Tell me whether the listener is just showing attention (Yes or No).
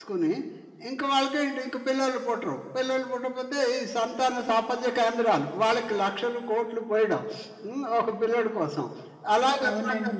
Yes